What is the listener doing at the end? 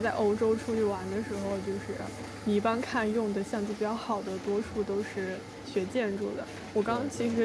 listening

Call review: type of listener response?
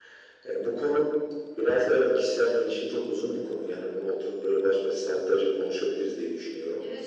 taking over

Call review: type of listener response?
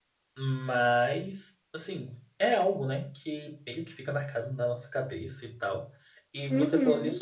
listening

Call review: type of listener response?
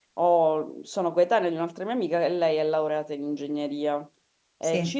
listening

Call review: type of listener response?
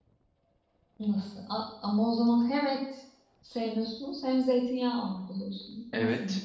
taking over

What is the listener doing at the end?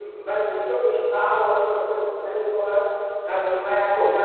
listening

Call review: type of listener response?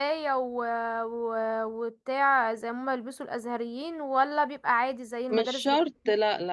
taking over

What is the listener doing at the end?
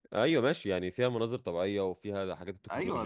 taking over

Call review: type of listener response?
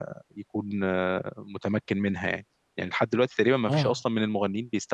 listening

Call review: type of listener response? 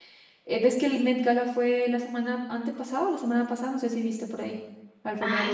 taking over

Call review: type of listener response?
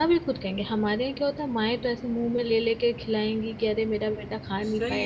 taking over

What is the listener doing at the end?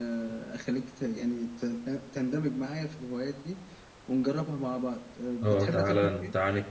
taking over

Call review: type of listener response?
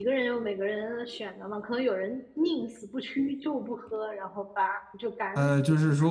taking over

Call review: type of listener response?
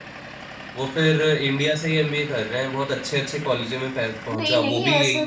taking over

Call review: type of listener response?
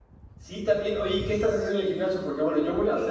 listening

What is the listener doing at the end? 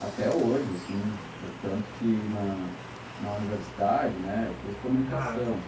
listening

